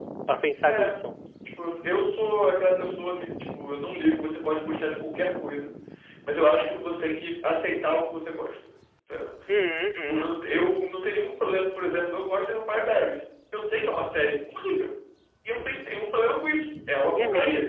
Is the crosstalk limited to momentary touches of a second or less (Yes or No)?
Yes